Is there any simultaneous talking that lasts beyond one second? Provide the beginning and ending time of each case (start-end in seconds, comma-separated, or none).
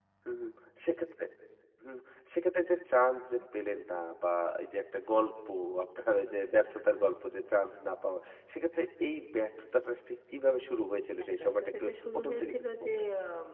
11.4-12.9